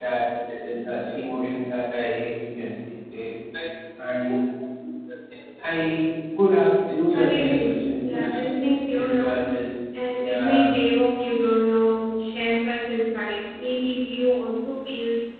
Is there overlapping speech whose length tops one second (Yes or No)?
Yes